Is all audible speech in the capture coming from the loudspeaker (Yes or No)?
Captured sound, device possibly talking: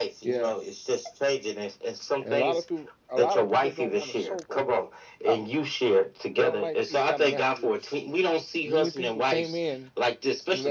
No